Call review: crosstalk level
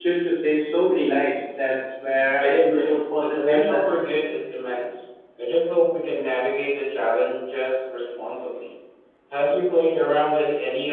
present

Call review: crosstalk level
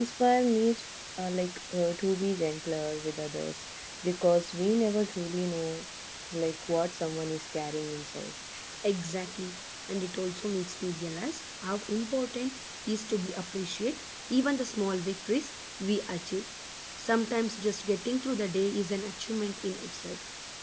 none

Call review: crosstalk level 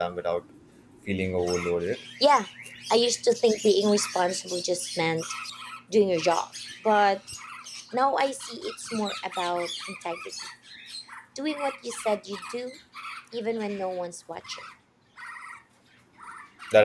none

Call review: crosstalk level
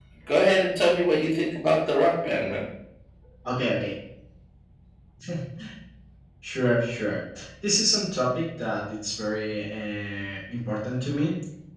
none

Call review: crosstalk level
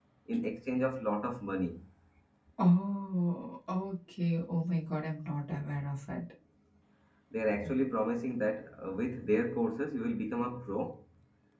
none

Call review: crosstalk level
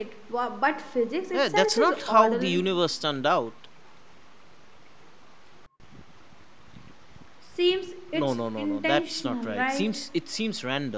present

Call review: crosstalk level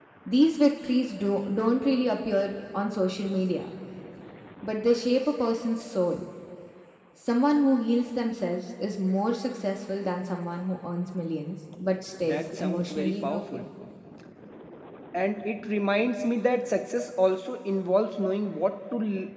present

